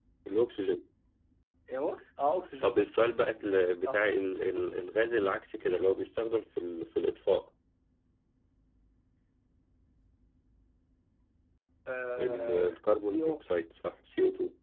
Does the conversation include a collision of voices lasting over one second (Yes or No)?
Yes